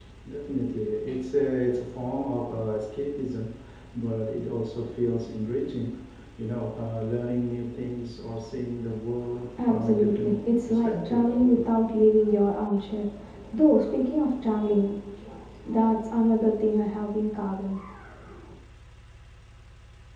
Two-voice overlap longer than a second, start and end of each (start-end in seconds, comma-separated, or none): 9.6-11.4